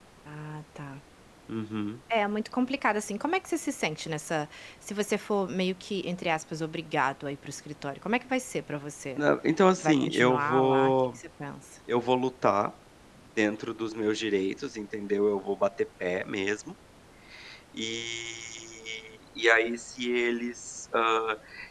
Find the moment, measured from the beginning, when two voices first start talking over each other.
9.8 s

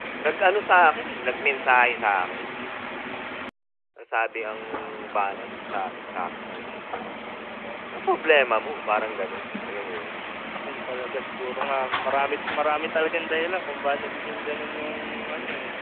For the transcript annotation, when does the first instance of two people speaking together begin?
none

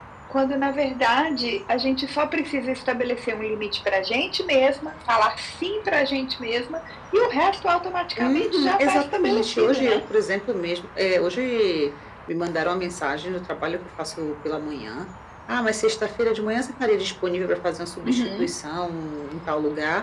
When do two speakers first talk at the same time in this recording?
8.2 s

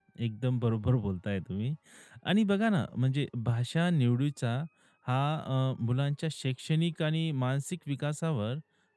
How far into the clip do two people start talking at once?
none

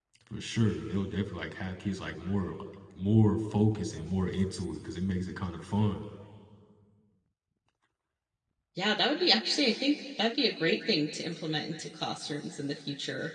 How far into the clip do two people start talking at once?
none

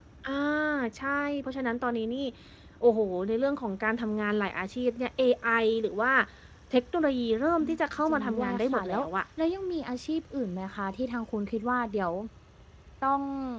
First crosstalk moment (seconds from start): 7.6 s

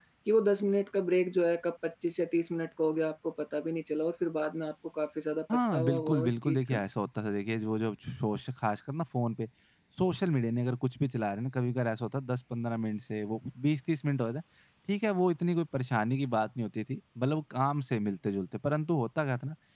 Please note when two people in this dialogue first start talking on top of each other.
5.5 s

